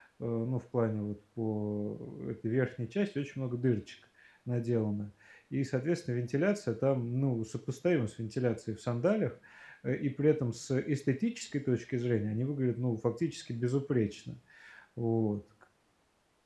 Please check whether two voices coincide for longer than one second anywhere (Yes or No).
No